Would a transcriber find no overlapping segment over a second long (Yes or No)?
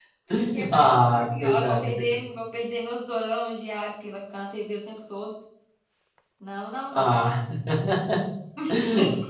No